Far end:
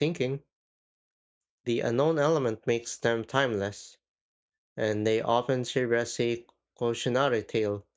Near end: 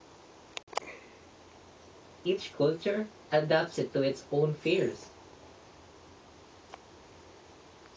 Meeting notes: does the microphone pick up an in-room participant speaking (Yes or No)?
Yes